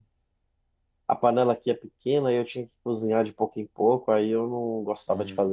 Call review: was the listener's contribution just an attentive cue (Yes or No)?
No